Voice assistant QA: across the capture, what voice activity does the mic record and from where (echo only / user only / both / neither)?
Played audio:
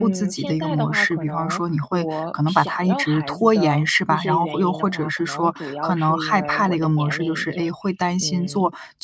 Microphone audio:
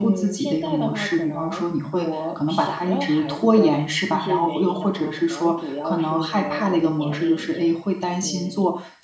echo only